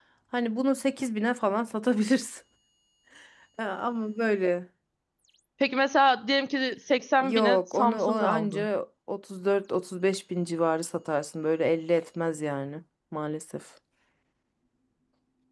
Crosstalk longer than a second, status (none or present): present